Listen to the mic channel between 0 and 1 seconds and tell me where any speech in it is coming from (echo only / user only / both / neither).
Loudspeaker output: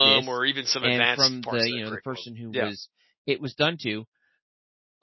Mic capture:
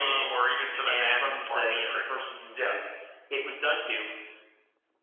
echo only